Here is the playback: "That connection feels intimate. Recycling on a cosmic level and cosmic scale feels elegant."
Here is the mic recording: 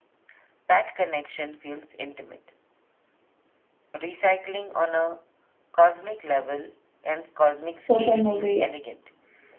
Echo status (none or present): present